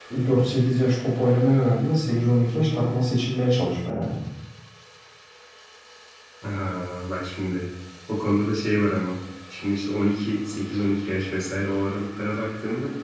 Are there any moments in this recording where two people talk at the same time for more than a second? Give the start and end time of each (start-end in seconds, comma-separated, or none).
none